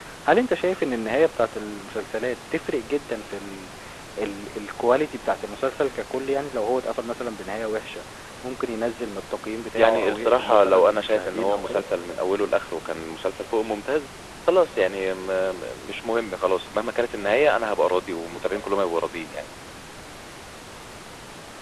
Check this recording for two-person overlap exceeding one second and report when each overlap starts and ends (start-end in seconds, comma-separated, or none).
9.8-11.8